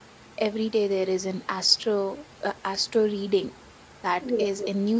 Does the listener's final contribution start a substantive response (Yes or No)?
No